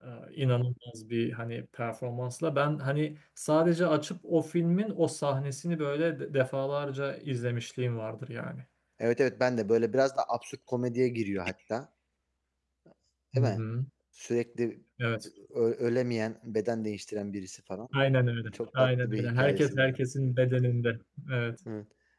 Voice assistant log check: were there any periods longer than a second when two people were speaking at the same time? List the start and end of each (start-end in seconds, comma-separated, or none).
18.5-19.9